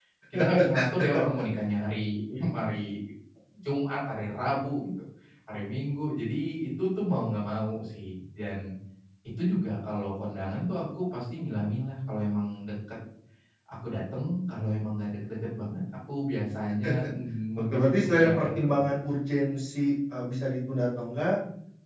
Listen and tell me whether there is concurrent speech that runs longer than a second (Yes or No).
Yes